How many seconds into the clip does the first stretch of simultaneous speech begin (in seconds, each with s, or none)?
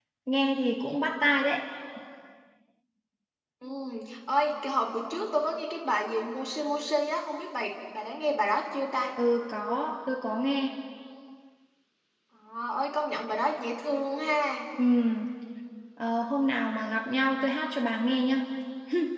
none